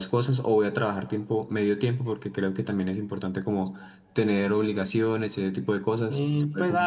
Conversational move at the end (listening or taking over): taking over